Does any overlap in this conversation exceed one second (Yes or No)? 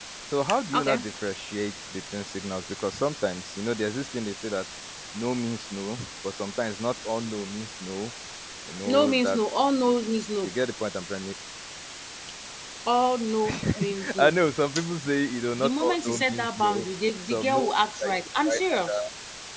Yes